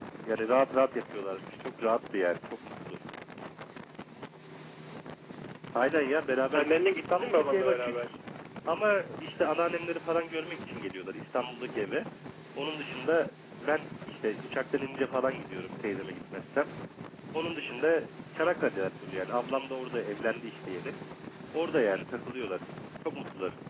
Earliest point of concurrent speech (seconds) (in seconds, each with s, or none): 6.5 s